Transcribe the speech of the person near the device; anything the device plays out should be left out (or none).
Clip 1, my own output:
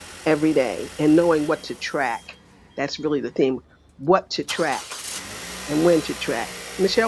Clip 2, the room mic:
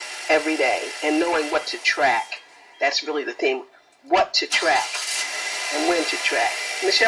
none